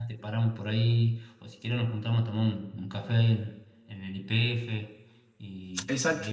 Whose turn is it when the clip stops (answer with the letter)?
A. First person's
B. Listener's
B